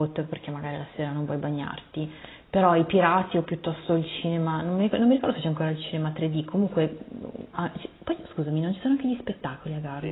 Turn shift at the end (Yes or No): Yes